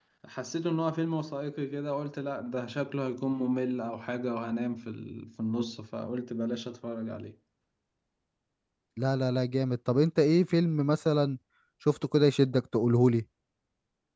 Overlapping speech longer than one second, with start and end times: none

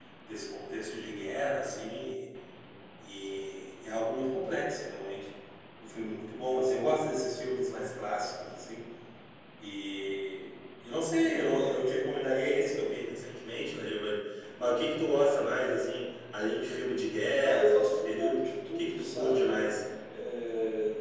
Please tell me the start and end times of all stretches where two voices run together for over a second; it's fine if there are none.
17.4-19.7

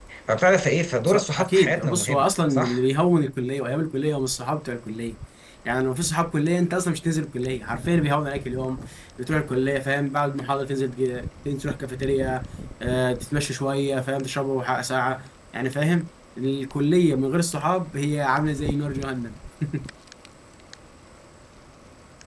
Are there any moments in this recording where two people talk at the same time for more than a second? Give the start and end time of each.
1.1-2.8

